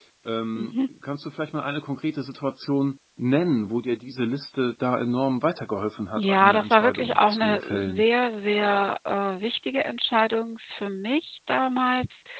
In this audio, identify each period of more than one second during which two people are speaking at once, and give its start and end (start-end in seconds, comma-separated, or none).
6.2-8.0